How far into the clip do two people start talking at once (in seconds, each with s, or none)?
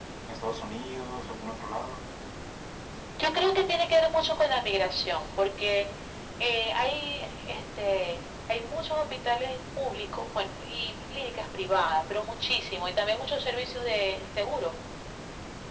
none